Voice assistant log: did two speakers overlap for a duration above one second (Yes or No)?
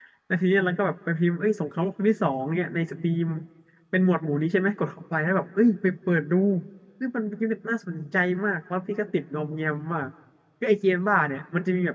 No